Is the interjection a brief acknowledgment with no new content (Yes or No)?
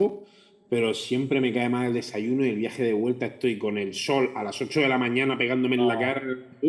Yes